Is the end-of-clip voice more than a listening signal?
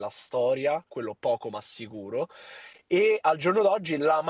No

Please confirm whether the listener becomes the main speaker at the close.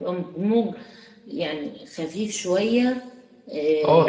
Yes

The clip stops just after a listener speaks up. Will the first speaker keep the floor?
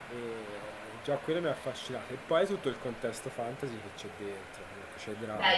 No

